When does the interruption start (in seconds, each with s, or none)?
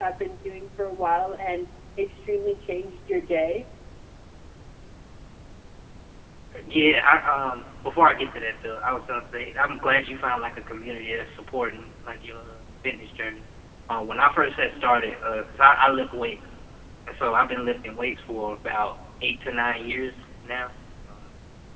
none